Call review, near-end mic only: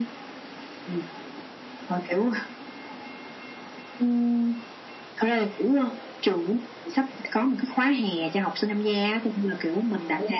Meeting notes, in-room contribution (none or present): none